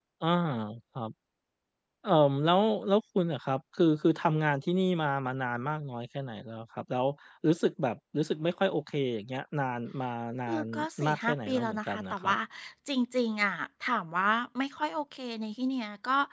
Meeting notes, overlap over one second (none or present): present